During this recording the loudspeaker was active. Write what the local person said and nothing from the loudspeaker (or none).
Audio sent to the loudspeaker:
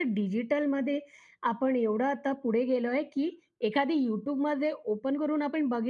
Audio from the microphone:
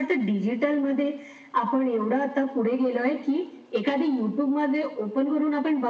none